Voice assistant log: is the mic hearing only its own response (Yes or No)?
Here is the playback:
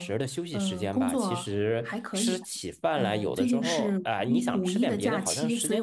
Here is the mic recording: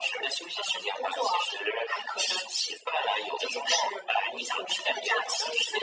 Yes